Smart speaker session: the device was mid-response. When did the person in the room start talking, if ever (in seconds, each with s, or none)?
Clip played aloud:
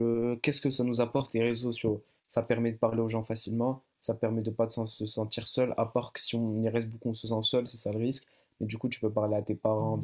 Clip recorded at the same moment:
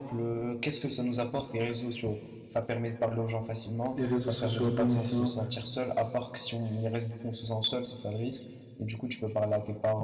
4.0 s